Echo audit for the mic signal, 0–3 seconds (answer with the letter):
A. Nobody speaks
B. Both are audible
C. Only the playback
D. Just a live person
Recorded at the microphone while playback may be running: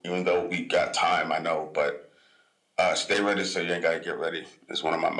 C